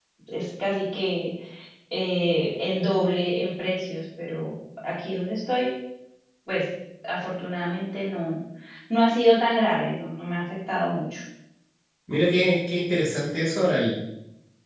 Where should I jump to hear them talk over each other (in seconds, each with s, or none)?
none